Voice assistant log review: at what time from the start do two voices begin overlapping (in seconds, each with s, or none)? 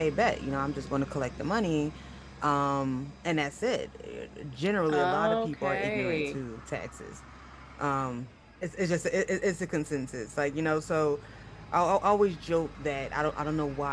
4.9 s